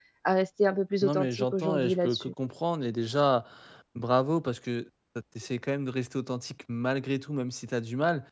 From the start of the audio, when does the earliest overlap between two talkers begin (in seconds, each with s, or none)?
1.0 s